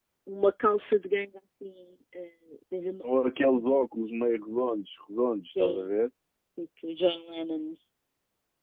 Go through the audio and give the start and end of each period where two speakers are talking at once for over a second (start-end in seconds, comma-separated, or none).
none